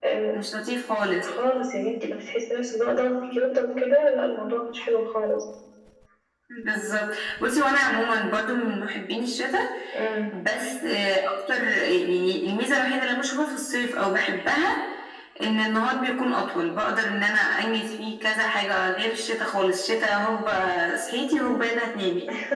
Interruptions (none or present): none